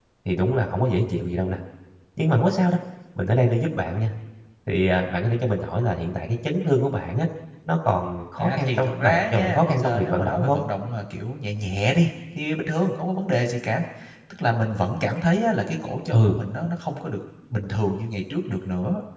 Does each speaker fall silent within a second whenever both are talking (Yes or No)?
No